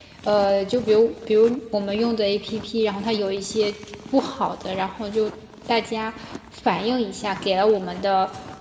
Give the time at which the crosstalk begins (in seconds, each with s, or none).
none